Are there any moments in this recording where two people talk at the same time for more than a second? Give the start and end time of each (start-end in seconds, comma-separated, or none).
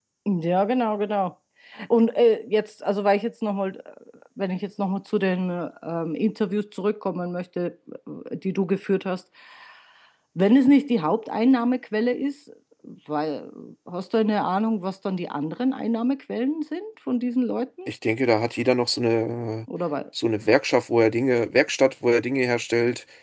none